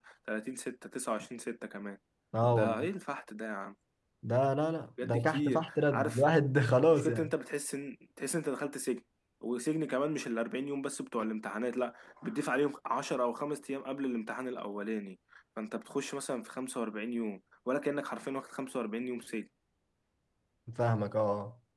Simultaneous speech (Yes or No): Yes